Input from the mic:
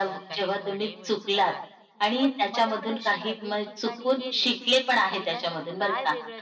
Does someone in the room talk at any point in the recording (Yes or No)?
Yes